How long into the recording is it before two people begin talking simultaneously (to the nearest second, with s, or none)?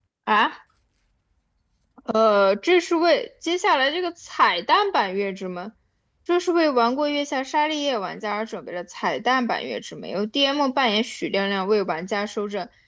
none